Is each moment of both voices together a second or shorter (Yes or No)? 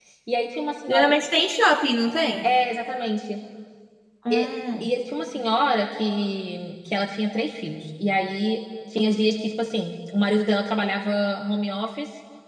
Yes